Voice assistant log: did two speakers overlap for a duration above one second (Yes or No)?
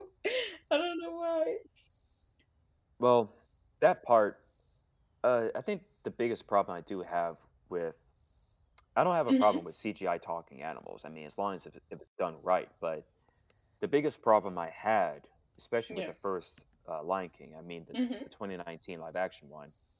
No